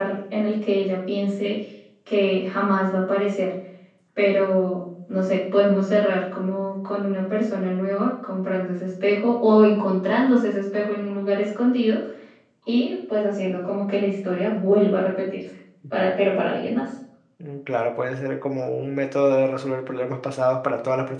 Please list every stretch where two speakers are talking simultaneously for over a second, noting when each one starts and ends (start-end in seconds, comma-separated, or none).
none